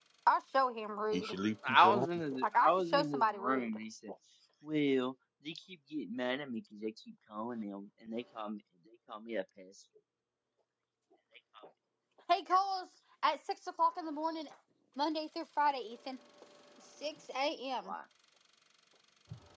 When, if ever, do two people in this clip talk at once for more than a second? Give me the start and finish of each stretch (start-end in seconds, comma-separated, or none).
2.4-3.7